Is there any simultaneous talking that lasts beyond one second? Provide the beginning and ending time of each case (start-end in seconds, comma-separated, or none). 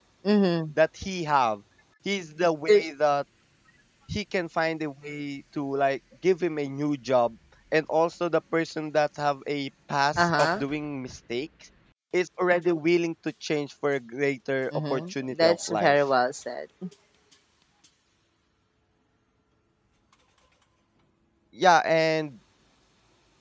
14.7-15.9